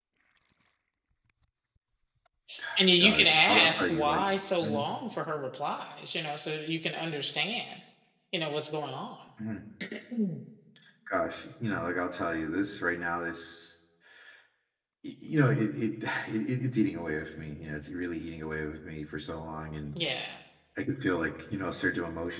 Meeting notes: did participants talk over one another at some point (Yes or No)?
Yes